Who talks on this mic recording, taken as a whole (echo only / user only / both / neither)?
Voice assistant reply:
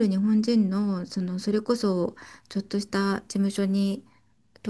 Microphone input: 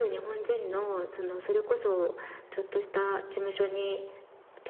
both